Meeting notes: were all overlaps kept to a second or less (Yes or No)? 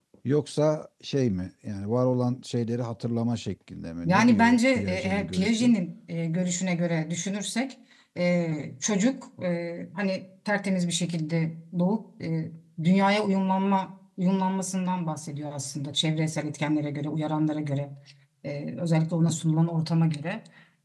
No